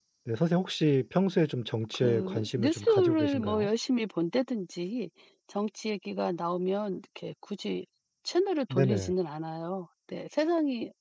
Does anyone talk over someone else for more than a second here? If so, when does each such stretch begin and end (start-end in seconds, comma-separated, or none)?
1.9-3.7